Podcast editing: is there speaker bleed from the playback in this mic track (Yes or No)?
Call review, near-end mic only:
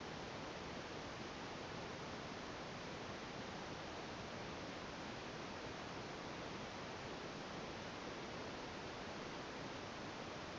No